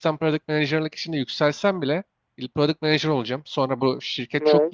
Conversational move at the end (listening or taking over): listening